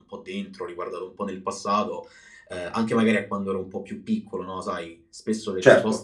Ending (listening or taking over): listening